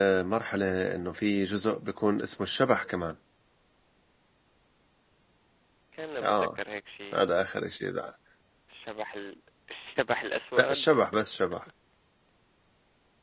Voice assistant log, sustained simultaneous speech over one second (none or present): none